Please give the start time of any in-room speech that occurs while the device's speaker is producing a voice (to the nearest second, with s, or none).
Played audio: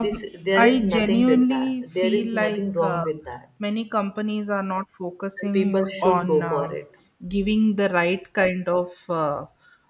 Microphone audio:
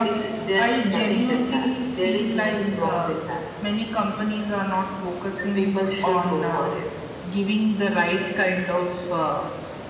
none